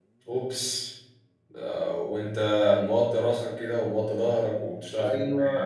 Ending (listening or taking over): taking over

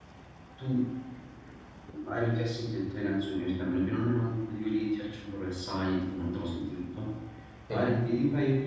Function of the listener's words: listening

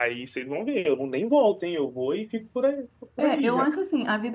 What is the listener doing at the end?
taking over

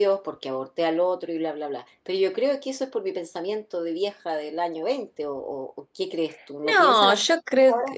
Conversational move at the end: taking over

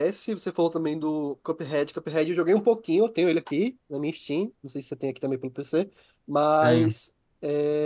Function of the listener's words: listening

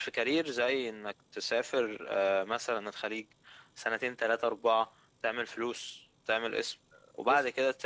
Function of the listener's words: listening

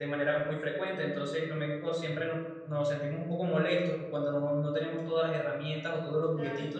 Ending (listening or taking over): listening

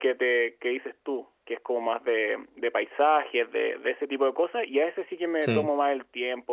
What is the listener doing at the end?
listening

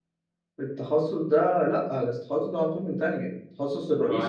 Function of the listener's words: taking over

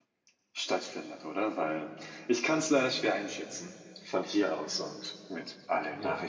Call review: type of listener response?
taking over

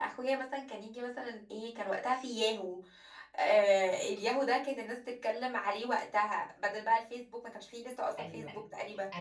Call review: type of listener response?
taking over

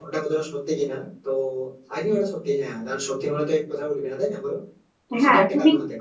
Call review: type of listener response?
taking over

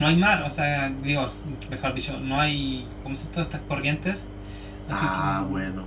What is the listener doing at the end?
taking over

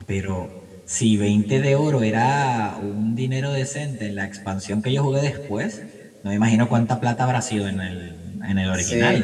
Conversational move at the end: taking over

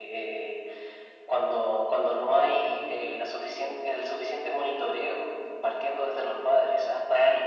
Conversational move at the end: listening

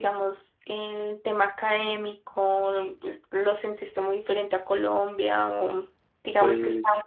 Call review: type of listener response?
listening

